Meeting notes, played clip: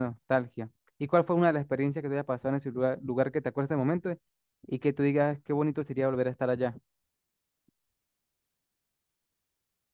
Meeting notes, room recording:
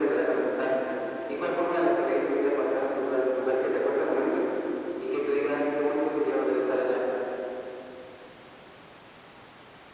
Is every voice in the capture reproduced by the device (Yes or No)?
Yes